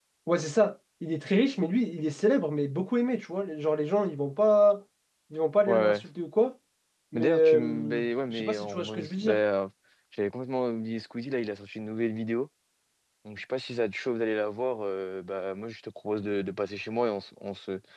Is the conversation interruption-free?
No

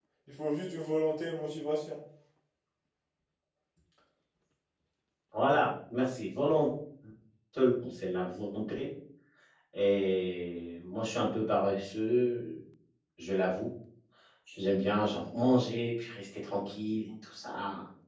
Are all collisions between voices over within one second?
Yes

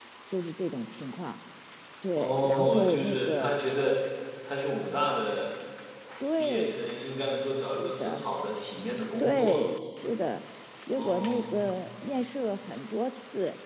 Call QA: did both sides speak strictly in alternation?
No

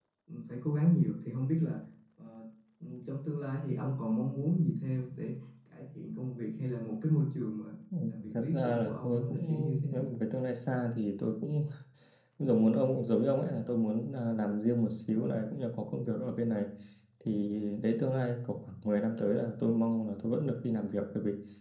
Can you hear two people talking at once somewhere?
Yes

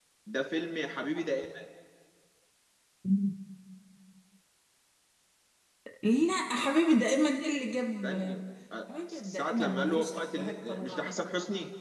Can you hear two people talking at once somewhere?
Yes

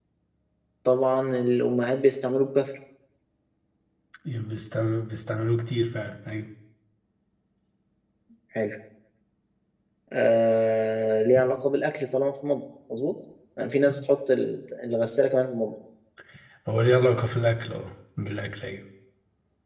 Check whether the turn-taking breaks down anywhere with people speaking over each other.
No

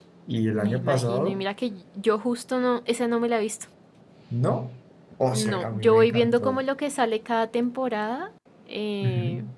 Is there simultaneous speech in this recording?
Yes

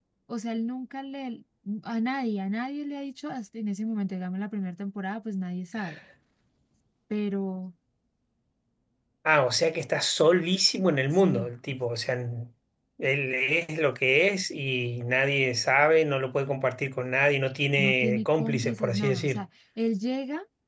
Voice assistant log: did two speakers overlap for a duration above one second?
Yes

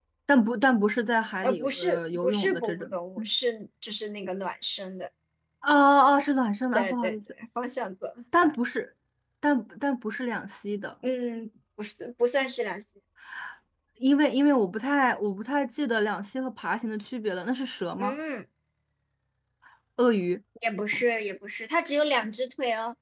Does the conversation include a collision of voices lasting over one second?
Yes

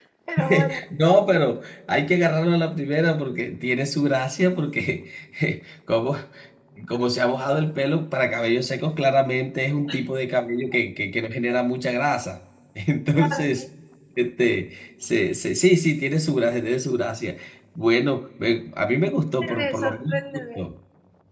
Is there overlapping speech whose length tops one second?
Yes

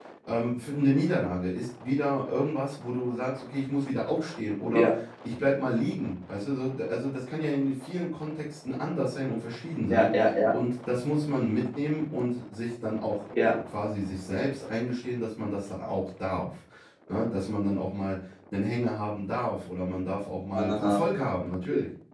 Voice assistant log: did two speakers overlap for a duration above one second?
No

